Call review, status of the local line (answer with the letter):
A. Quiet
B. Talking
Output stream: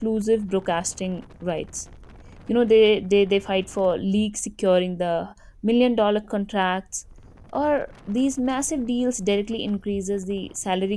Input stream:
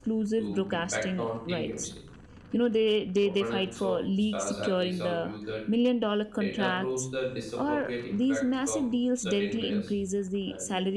B